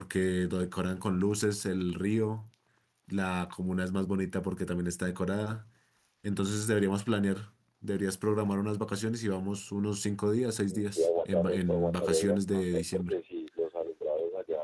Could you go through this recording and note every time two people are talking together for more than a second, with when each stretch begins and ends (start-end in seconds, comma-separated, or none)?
10.7-13.1